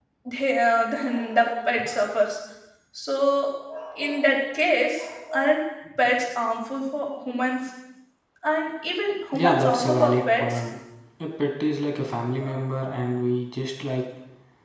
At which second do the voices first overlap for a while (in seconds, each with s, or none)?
9.3 s